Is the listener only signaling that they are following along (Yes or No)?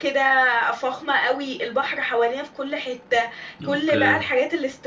Yes